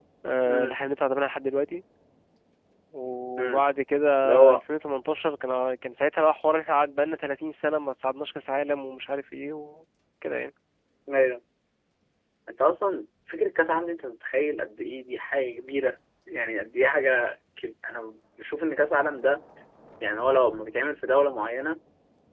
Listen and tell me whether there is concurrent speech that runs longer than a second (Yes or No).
No